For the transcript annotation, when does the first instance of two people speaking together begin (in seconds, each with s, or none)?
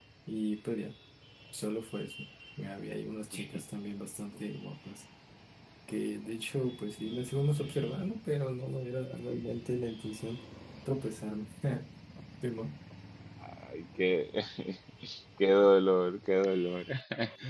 none